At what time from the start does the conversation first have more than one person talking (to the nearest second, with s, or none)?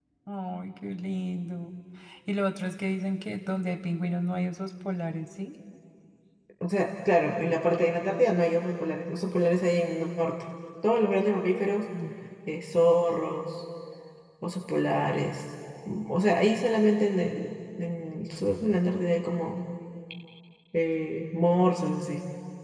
none